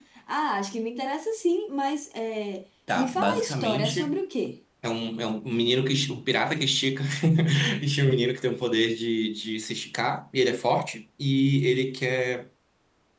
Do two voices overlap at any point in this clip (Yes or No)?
Yes